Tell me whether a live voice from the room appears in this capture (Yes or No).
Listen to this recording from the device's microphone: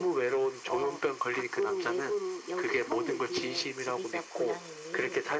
No